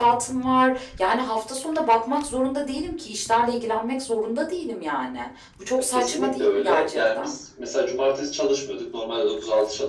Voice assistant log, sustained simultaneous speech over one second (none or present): present